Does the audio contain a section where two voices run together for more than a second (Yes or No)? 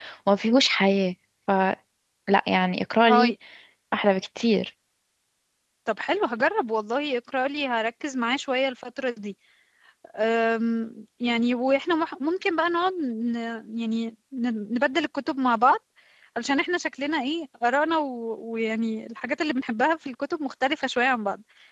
No